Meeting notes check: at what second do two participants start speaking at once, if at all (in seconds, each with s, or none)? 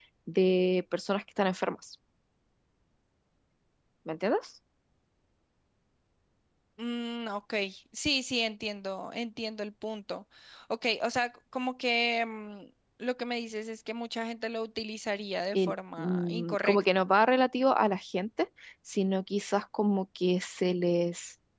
15.5 s